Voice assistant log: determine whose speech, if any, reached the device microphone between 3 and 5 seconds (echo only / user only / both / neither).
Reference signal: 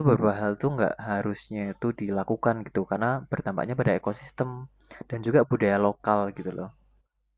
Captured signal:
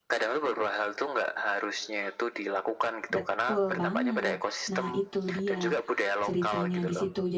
both